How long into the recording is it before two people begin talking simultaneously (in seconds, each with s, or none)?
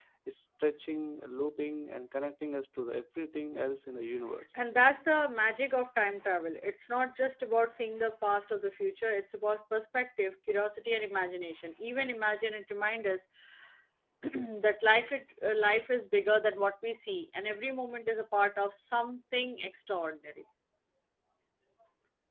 none